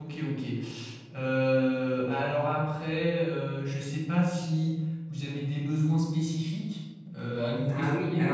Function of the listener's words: taking over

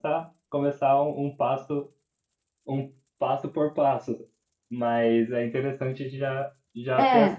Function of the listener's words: listening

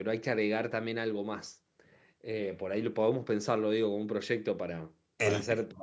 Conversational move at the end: listening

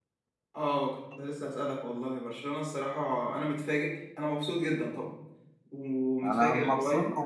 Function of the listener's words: taking over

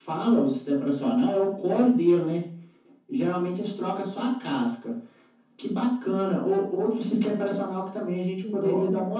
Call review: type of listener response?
listening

